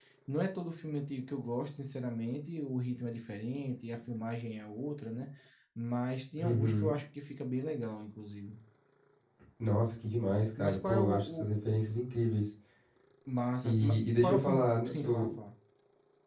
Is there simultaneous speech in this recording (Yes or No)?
Yes